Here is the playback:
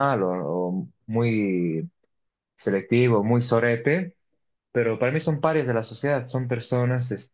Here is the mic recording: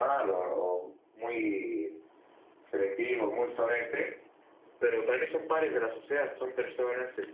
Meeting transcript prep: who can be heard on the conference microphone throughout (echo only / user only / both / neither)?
echo only